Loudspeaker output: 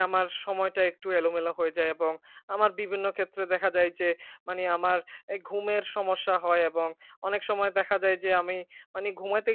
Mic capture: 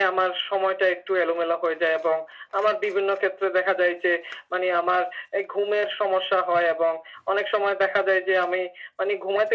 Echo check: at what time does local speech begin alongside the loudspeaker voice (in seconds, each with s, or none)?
none